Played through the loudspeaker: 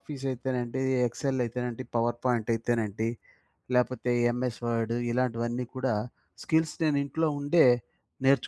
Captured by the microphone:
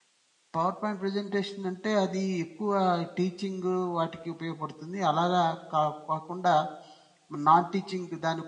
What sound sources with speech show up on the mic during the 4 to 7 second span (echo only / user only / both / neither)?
user only